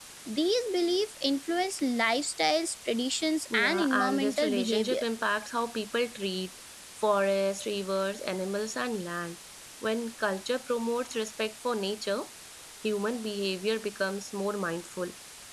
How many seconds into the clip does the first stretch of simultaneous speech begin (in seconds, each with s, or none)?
3.5 s